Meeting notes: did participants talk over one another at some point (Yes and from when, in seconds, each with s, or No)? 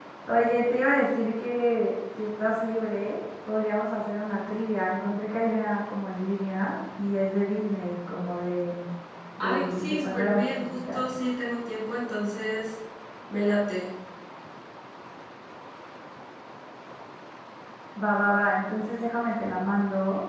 Yes, from 9.4 s